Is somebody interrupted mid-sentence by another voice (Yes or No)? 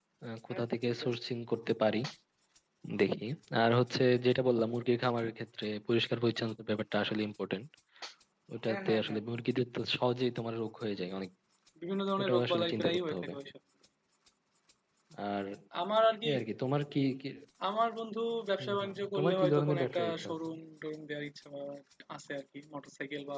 Yes